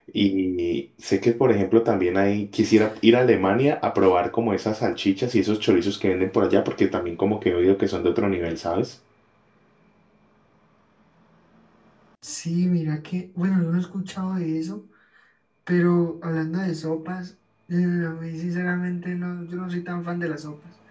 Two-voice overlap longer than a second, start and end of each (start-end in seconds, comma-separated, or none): none